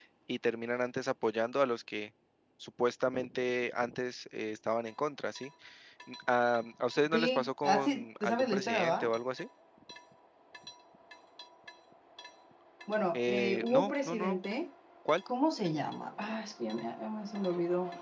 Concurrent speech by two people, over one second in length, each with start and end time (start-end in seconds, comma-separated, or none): 7.1-9.1, 13.1-14.4